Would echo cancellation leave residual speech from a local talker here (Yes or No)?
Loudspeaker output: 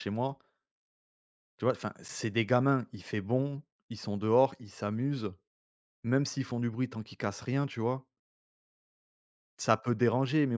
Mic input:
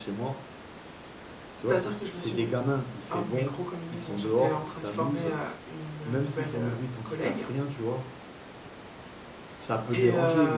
Yes